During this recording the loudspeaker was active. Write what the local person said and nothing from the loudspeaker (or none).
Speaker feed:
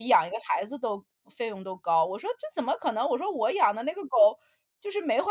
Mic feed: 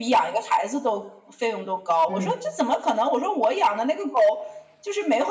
嗯，